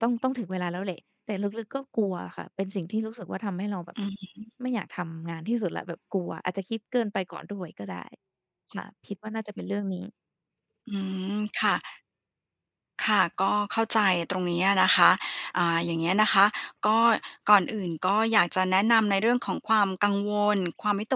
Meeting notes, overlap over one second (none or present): none